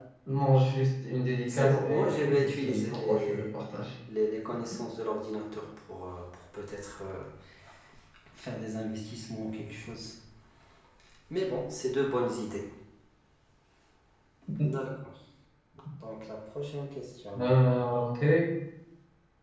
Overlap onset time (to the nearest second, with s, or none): 1 s